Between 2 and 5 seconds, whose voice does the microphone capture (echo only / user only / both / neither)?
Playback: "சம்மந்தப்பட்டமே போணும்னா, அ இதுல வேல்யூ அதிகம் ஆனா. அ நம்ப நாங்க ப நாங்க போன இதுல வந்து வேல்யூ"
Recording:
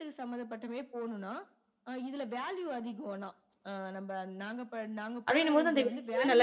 echo only